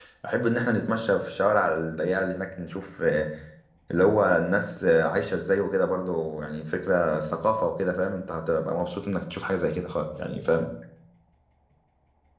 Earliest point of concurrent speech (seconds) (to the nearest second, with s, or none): none